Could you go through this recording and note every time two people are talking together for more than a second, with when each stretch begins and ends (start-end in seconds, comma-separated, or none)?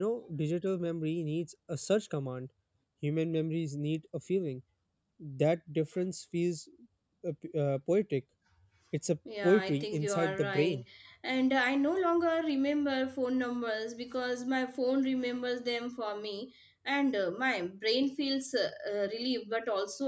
9.4-10.8